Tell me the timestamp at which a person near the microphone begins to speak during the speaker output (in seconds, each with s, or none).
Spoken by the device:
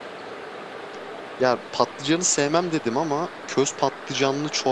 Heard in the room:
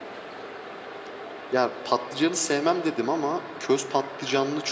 none